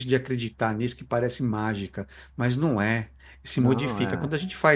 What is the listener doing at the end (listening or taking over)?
listening